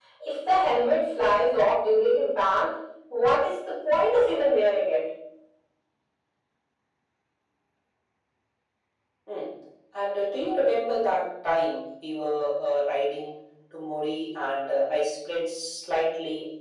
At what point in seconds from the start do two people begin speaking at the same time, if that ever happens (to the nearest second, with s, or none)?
none